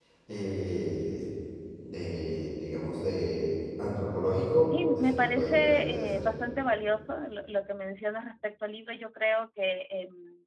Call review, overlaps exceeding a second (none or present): present